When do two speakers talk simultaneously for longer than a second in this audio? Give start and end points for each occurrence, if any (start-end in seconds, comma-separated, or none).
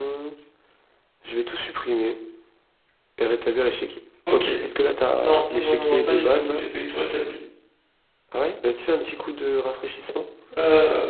5.2-6.6